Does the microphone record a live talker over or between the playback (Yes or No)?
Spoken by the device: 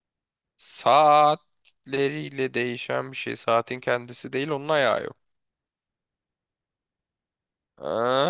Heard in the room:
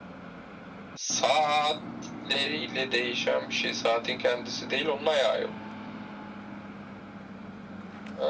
No